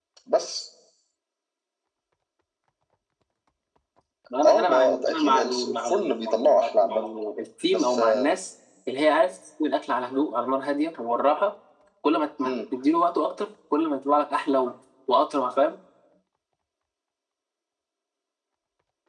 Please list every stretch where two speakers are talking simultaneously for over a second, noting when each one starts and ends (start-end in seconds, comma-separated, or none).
4.4-7.0